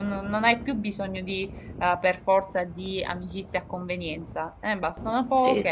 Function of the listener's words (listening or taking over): listening